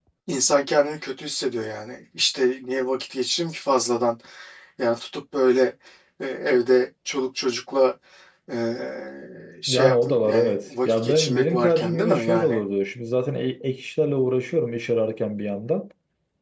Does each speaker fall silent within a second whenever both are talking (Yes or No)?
No